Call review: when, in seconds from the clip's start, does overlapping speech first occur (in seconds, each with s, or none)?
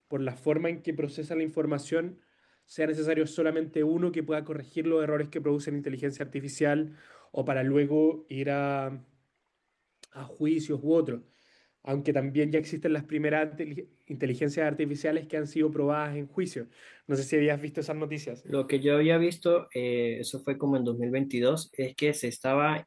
none